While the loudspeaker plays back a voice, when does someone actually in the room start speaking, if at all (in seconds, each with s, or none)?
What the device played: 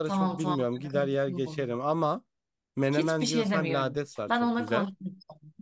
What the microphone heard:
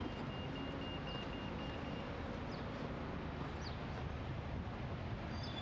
none